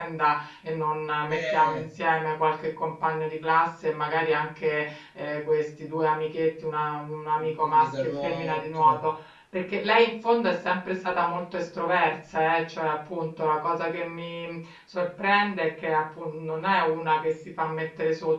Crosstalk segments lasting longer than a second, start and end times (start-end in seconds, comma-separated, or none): 7.5-8.8